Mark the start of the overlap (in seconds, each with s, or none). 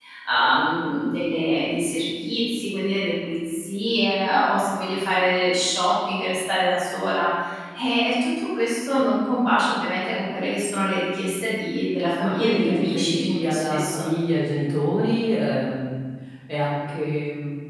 12.2 s